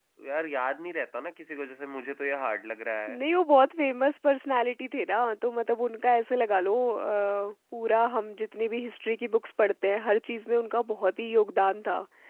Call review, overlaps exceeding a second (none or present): none